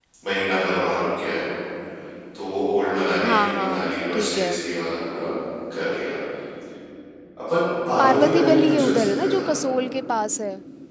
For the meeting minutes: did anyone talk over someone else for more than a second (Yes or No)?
Yes